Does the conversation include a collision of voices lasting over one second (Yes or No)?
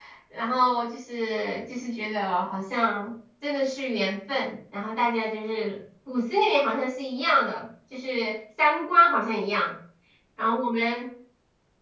No